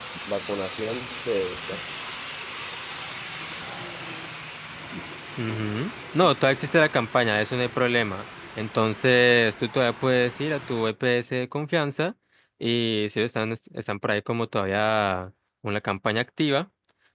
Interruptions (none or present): none